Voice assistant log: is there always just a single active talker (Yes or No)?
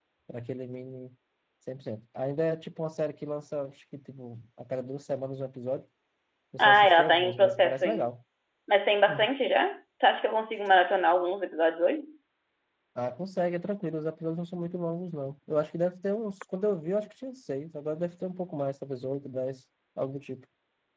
No